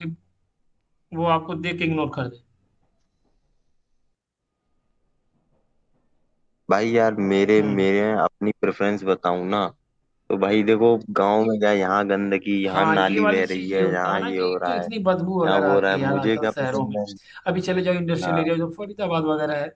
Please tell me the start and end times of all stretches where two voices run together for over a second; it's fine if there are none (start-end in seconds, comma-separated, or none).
12.7-14.9, 15.4-17.0